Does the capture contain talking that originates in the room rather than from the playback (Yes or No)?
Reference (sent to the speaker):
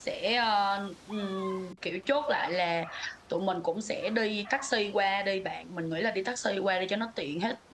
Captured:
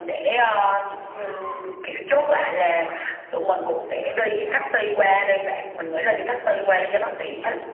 No